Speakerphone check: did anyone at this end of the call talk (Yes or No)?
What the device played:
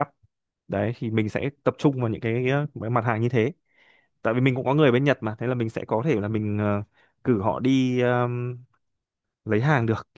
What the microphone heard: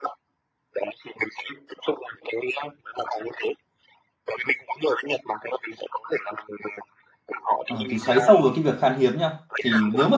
Yes